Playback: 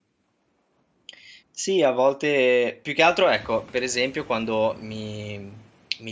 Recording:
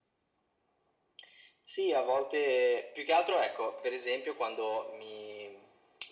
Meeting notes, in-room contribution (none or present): none